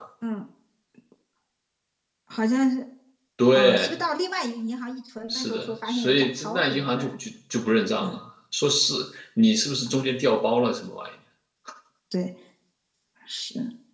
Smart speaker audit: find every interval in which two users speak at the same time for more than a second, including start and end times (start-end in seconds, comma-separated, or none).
5.3-7.0